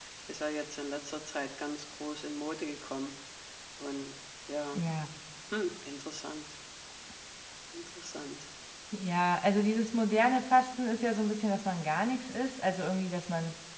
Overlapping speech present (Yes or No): No